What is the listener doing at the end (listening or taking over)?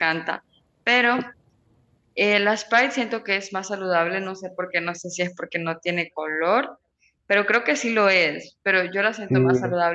listening